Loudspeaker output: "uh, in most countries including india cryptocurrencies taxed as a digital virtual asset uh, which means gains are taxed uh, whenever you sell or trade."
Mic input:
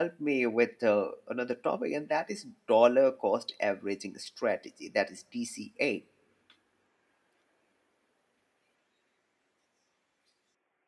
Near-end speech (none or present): present